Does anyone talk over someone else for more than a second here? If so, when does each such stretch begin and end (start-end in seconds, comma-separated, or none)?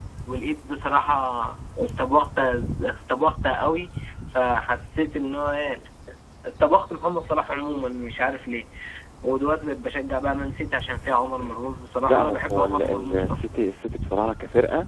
12.1-13.4